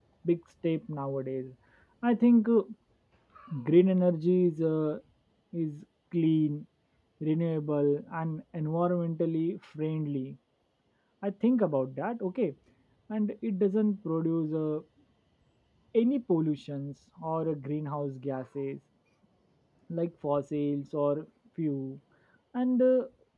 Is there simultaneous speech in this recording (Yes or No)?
No